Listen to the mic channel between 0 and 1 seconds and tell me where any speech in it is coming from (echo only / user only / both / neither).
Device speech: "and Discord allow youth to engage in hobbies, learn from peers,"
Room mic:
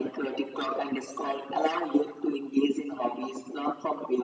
echo only